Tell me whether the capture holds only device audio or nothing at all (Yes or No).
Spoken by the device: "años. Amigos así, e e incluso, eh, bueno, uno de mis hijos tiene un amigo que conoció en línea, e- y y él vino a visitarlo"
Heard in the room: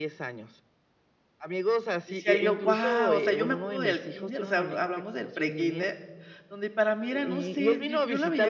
No